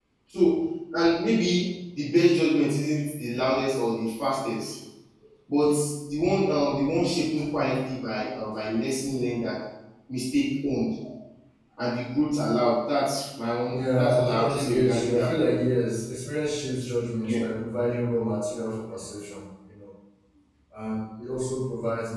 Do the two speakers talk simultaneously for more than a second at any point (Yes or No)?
Yes